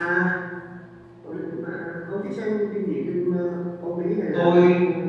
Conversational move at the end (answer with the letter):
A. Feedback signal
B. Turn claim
B